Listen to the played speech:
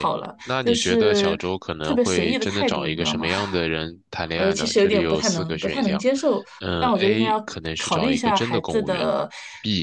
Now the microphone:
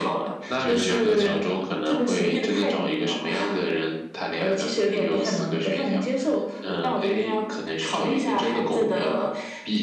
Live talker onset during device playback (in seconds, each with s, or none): 0.5 s